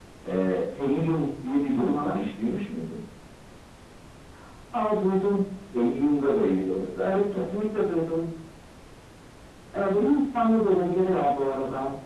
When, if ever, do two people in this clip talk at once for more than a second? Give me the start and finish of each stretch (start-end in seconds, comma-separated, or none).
none